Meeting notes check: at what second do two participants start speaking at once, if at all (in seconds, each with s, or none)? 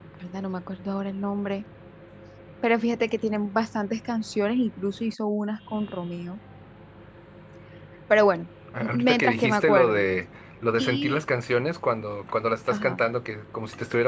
8.8 s